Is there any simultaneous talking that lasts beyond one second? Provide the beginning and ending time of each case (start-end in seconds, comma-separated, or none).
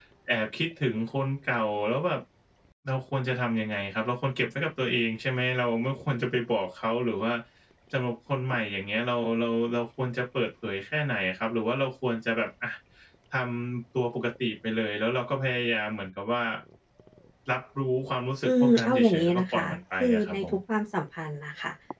18.4-20.4